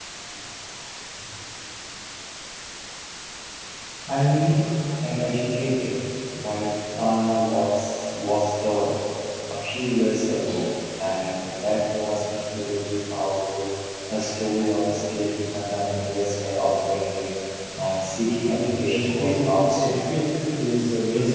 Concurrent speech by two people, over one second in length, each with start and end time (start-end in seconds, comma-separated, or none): 18.5-20.2